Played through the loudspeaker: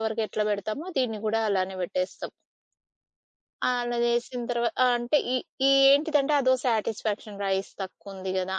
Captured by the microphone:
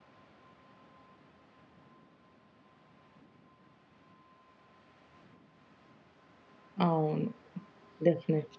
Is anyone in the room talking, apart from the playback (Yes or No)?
Yes